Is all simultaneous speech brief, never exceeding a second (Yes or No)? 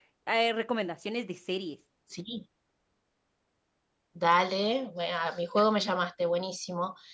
Yes